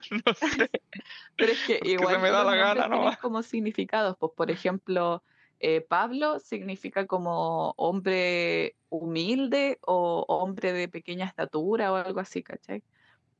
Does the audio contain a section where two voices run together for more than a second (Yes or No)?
Yes